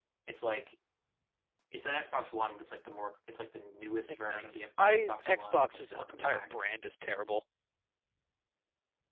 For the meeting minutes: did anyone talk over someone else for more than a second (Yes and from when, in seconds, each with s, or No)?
Yes, from 4.1 s